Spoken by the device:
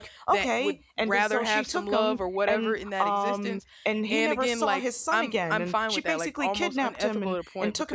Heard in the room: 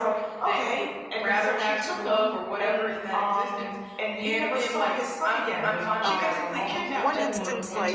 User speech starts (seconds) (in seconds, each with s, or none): 6.1 s